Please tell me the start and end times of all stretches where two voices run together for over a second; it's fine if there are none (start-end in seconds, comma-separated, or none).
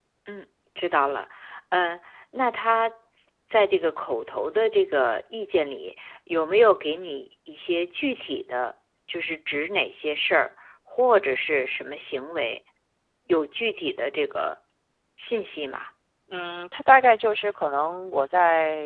none